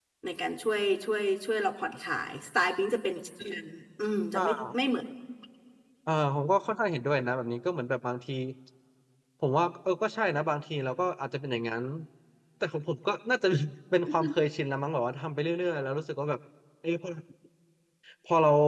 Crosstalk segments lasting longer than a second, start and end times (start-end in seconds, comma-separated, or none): none